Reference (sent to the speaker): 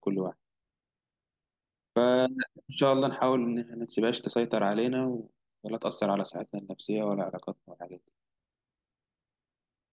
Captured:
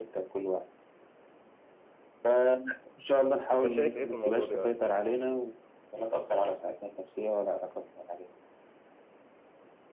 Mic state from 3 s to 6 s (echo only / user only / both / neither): both